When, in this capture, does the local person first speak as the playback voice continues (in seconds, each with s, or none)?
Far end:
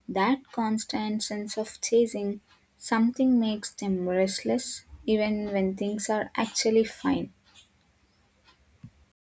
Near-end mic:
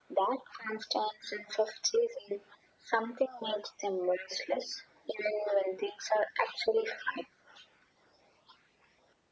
none